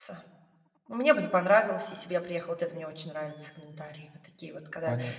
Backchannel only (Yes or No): No